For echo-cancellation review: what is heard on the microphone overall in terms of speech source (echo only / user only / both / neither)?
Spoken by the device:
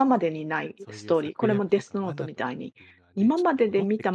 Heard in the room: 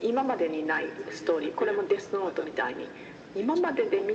echo only